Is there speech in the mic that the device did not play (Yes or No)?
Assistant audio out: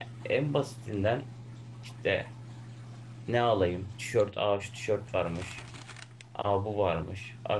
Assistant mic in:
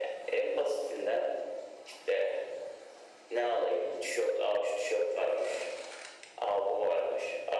No